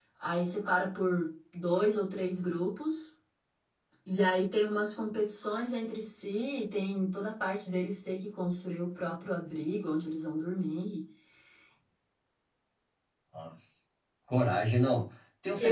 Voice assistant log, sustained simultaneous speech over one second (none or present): none